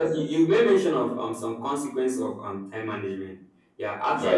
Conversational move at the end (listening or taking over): listening